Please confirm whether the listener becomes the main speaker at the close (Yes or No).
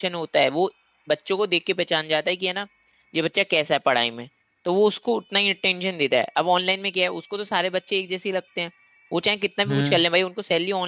No